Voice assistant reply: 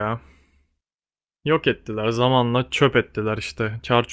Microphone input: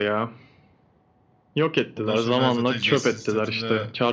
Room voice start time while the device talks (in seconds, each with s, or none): 1.9 s